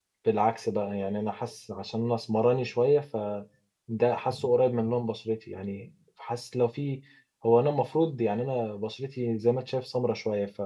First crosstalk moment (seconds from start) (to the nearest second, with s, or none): none